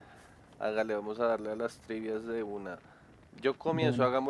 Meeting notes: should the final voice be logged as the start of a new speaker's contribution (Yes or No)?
No